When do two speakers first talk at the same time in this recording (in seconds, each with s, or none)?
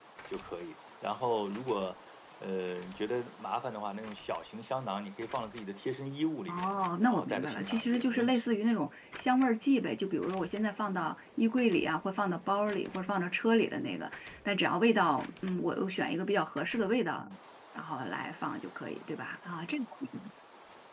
6.5 s